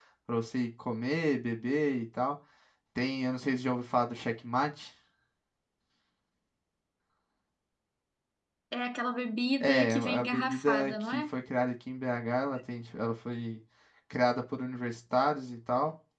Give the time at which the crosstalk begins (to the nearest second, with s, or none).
10 s